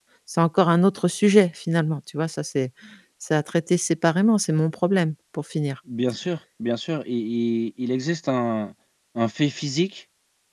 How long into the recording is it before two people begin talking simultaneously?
none

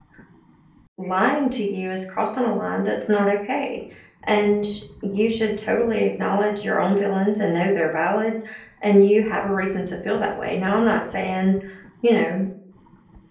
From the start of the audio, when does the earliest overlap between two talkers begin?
none

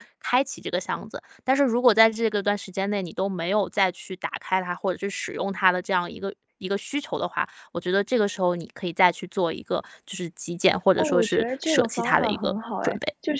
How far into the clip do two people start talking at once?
11 s

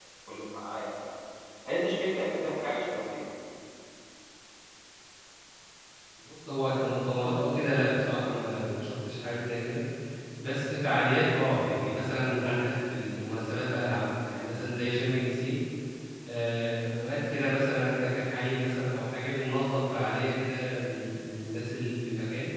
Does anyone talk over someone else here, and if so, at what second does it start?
none

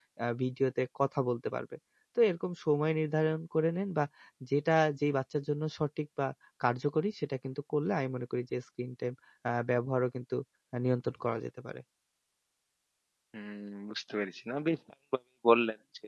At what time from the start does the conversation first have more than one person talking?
none

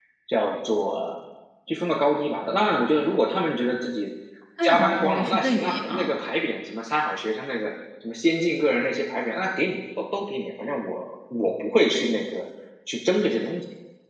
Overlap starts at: 5 s

